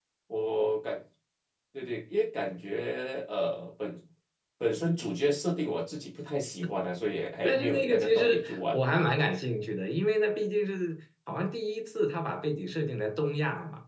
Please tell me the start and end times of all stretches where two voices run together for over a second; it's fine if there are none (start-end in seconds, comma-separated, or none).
7.4-8.8